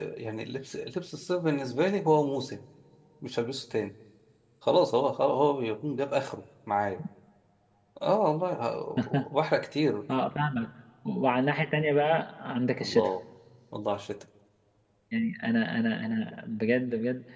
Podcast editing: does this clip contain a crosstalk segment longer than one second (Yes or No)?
No